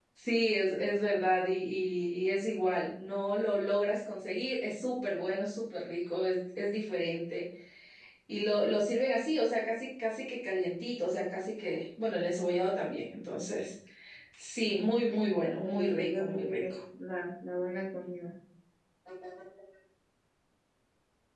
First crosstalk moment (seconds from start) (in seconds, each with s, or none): 15.1 s